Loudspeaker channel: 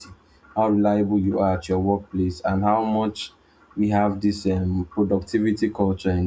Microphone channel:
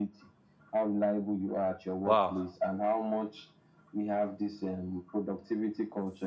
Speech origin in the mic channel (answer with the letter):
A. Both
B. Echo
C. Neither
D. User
A